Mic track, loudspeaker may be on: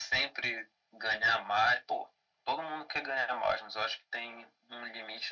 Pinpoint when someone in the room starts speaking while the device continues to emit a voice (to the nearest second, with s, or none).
none